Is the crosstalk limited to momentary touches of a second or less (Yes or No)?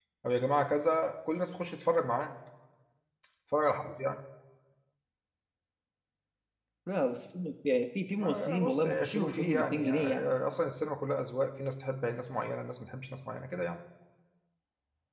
No